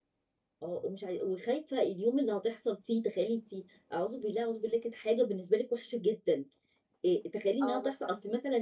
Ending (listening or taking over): listening